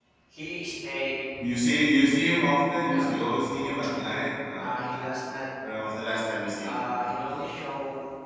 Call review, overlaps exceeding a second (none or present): none